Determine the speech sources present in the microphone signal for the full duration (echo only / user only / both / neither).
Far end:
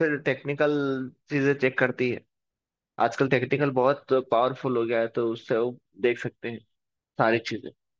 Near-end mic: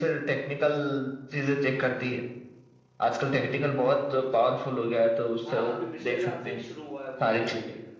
both